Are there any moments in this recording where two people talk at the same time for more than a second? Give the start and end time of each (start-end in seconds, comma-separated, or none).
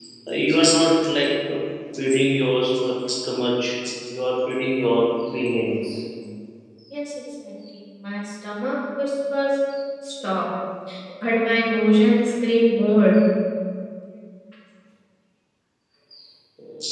none